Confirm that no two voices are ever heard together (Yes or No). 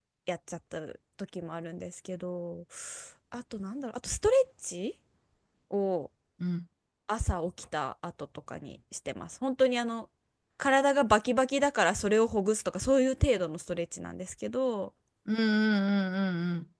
Yes